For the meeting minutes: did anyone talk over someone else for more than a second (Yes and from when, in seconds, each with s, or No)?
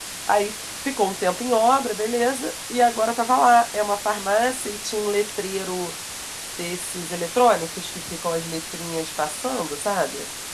No